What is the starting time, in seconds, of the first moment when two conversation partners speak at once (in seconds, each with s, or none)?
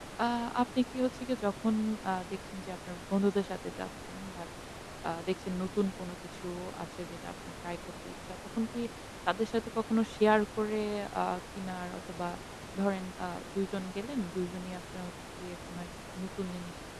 none